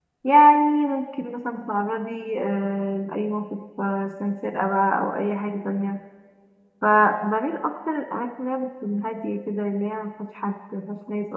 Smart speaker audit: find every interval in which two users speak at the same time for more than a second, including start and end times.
none

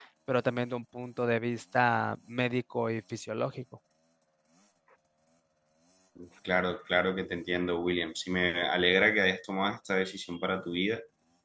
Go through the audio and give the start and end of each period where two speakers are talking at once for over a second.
none

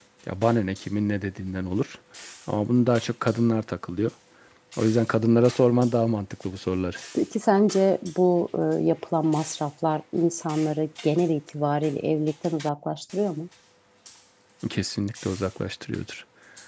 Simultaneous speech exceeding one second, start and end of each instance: none

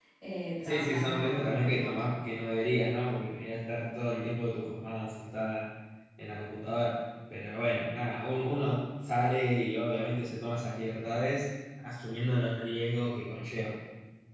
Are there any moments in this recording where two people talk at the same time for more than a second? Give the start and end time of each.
0.6-2.1

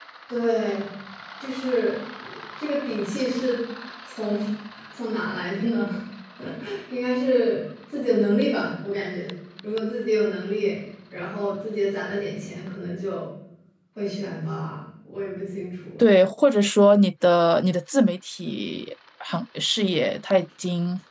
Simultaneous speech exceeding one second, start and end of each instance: none

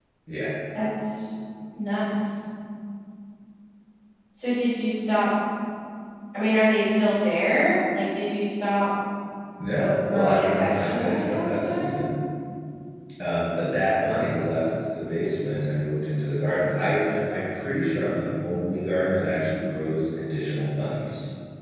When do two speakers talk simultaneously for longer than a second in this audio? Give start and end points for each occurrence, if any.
10.0-12.0

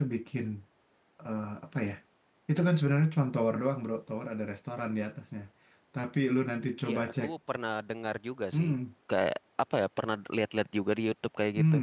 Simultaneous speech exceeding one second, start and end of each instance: none

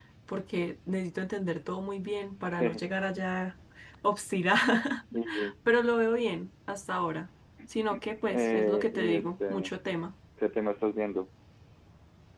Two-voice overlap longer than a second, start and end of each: 8.3-9.7

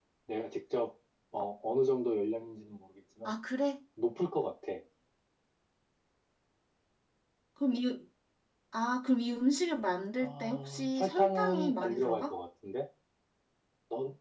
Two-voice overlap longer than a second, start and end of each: 10.2-12.3

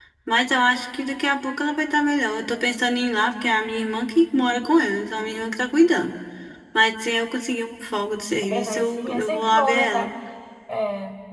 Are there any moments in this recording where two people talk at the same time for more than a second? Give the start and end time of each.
8.5-10.1

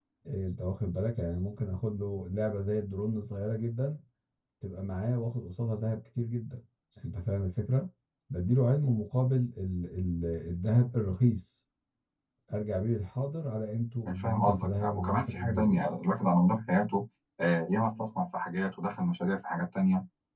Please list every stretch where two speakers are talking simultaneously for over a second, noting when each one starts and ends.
14.1-15.8

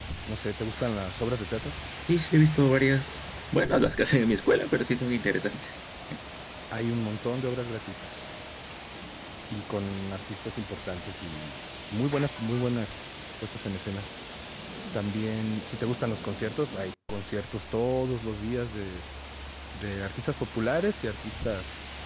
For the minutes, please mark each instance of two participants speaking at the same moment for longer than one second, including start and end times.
none

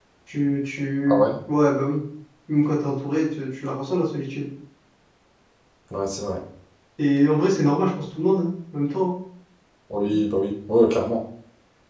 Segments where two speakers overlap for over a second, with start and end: none

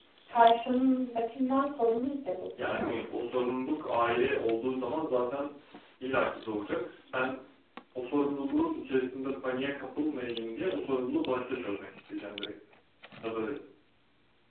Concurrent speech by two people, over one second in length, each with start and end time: none

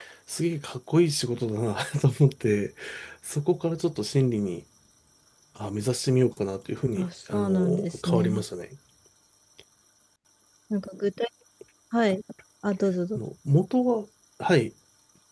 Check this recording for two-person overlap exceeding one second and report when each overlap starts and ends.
7.0-8.4

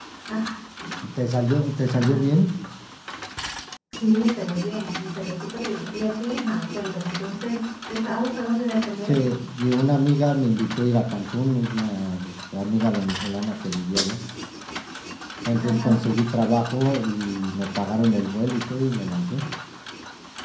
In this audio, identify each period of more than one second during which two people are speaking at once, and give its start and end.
none

